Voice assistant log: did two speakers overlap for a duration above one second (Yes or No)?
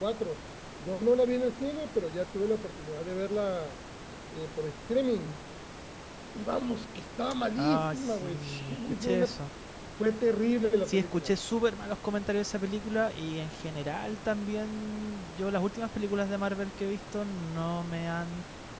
Yes